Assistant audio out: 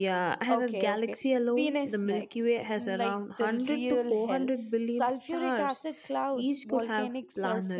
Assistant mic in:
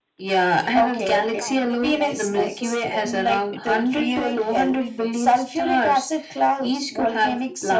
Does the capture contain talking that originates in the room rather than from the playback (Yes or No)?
Yes